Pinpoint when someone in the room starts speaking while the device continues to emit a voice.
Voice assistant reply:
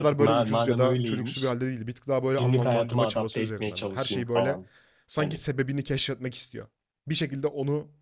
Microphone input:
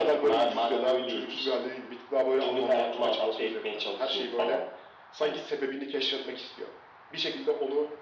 none

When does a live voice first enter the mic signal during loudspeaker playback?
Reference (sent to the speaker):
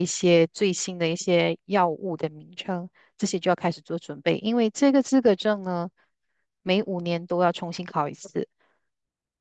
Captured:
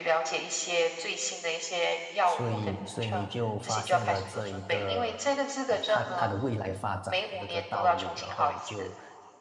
2.2 s

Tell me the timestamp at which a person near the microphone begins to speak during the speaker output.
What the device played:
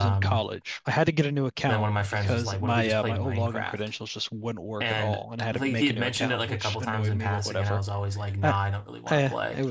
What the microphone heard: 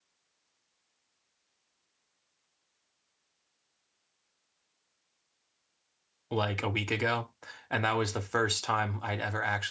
6.3 s

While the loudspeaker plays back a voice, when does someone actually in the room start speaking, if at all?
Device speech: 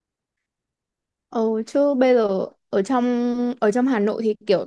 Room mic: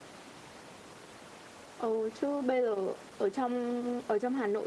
none

